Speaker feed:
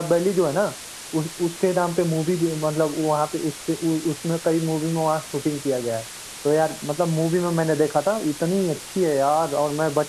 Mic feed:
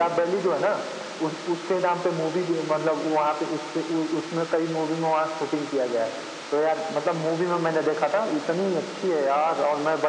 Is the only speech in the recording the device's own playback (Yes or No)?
Yes